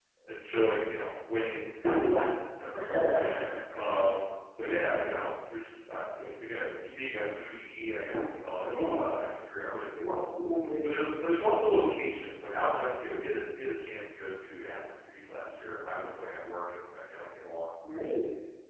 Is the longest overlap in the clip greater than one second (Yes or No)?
No